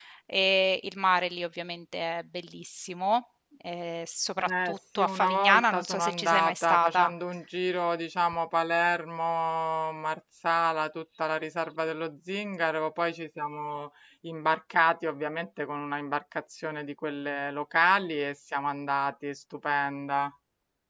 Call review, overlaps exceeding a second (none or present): present